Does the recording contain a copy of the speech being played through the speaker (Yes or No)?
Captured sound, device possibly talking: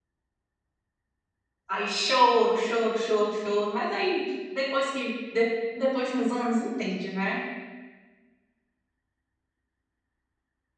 No